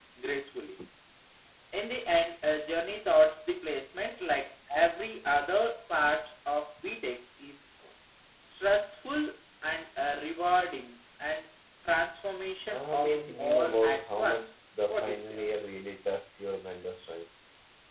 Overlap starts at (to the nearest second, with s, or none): 13 s